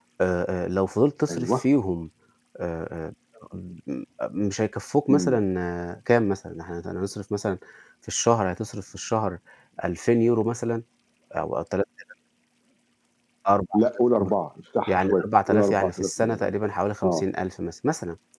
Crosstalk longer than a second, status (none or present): present